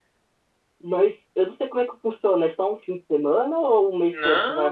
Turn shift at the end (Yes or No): Yes